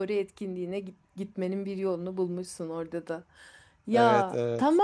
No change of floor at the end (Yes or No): Yes